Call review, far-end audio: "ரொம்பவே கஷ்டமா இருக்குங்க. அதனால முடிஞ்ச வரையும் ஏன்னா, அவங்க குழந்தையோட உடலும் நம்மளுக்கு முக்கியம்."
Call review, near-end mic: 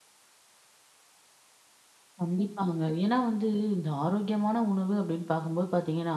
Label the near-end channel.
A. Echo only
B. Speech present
B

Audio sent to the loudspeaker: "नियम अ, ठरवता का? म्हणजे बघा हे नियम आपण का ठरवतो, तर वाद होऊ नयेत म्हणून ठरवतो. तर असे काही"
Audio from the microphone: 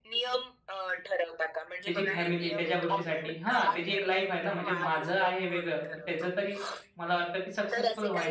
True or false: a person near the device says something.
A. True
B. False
A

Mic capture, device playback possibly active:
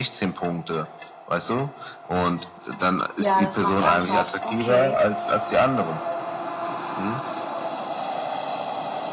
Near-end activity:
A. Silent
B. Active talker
B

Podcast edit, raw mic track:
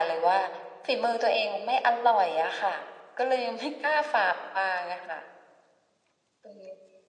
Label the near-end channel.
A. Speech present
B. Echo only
B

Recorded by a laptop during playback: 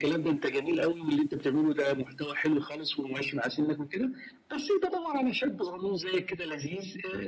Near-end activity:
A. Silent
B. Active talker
A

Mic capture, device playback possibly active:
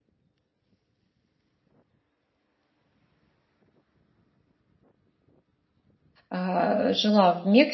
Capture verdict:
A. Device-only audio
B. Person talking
B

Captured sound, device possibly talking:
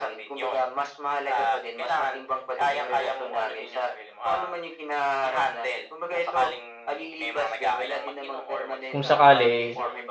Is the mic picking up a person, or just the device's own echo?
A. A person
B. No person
A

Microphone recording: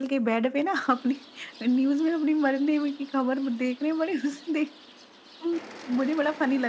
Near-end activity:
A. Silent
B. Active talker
A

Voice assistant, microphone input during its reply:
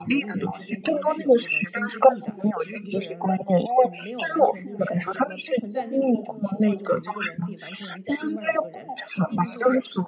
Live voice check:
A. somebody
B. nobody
A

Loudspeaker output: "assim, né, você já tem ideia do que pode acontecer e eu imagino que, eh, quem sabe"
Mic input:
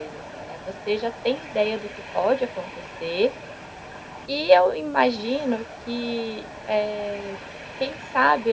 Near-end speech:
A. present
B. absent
B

